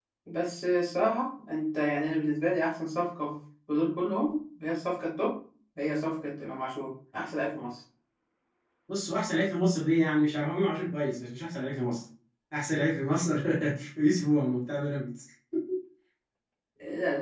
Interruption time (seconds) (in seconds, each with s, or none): none